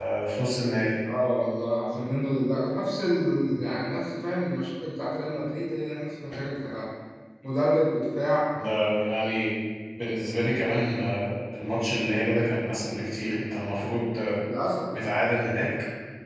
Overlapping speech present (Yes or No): No